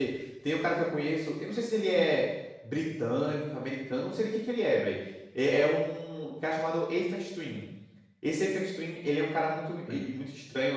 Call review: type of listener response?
listening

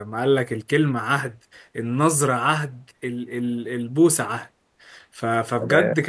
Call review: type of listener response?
listening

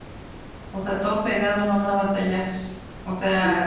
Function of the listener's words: listening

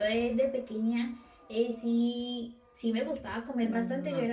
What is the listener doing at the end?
listening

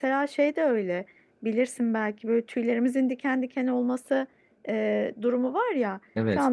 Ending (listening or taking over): listening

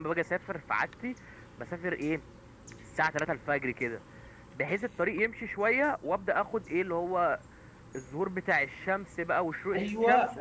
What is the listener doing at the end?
taking over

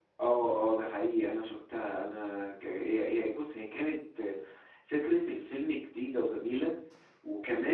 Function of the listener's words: listening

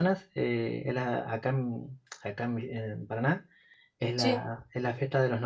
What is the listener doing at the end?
listening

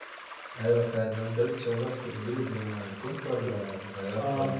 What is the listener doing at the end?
taking over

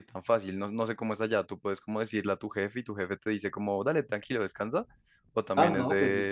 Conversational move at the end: taking over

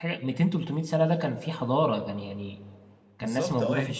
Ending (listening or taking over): taking over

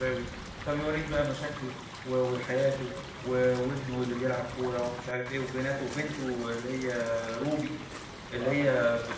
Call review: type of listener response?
listening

